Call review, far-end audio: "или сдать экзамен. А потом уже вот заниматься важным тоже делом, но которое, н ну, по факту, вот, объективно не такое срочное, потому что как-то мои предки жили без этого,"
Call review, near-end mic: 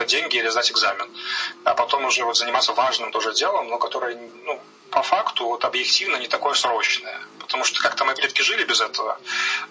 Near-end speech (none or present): none